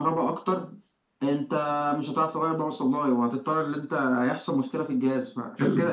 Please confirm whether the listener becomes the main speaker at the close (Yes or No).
No